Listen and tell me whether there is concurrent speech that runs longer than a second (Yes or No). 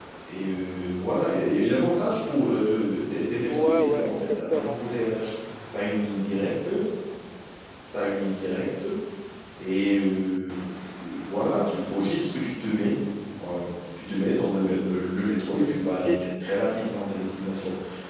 Yes